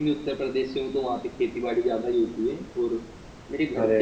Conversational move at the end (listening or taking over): listening